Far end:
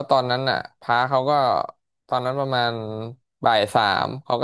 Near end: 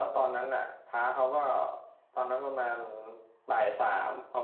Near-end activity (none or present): none